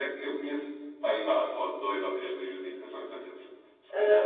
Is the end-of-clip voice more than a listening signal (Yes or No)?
Yes